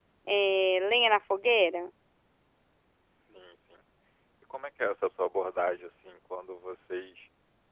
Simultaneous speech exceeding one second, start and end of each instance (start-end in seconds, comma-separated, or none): none